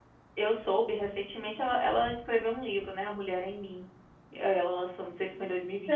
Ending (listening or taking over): taking over